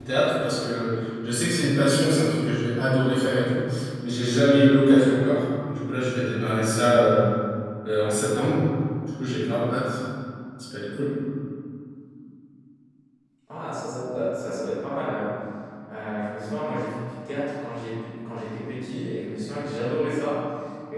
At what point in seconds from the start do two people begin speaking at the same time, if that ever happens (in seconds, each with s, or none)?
none